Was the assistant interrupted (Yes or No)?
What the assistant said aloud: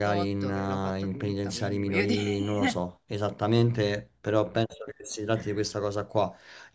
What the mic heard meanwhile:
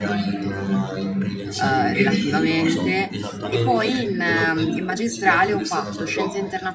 Yes